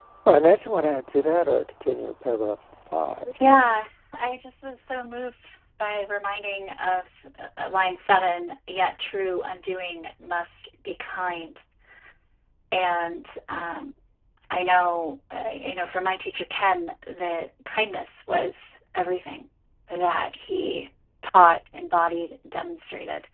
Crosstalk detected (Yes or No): No